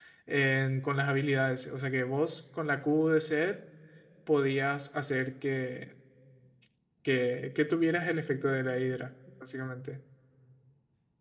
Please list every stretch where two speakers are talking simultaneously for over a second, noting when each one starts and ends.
none

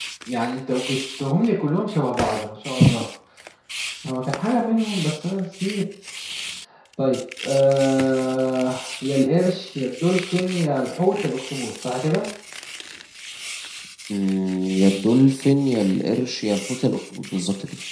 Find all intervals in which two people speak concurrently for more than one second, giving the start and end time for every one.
none

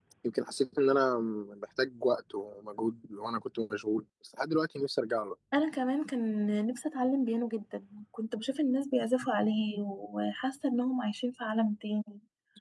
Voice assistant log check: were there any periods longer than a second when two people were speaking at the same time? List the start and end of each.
none

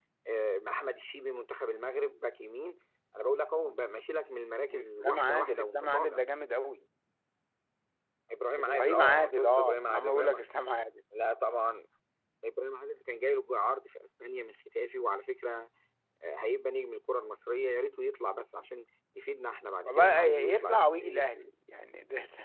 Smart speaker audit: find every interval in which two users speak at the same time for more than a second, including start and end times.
4.7-6.2, 8.6-10.4, 19.8-21.5

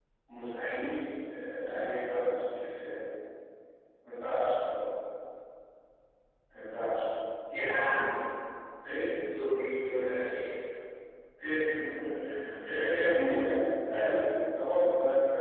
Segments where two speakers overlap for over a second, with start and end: none

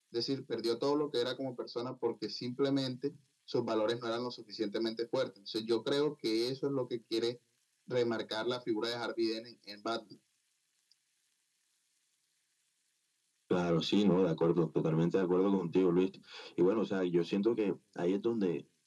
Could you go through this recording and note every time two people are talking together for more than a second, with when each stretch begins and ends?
none

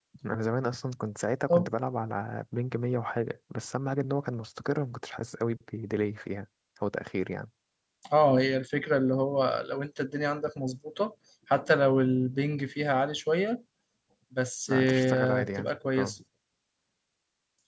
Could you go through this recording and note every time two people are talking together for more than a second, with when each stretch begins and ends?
14.7-16.1

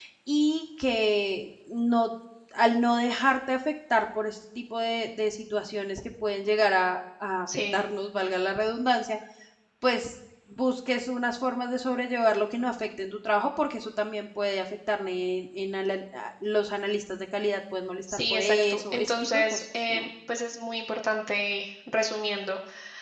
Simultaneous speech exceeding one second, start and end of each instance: 18.1-20.1

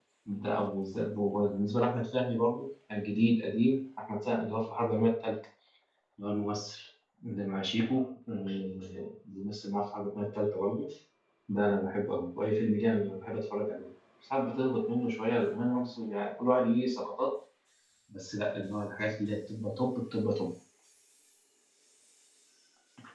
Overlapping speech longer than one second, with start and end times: none

